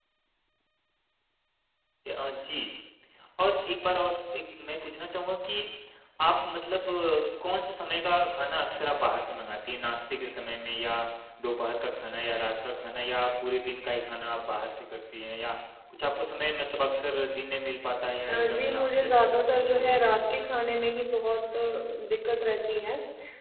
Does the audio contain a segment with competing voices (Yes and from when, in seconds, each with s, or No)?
Yes, from 18.3 s